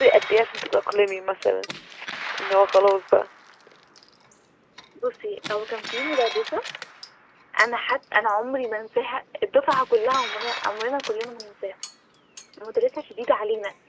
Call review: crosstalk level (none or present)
none